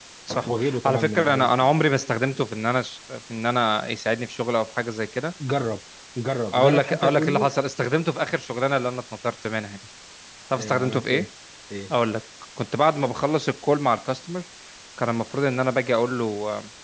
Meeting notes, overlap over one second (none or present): present